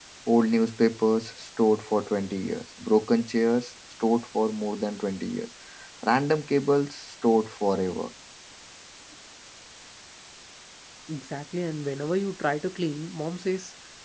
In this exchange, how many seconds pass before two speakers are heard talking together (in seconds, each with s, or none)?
none